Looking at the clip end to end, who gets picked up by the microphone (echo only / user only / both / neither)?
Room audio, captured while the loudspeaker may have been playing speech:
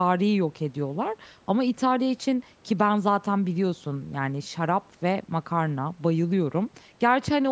user only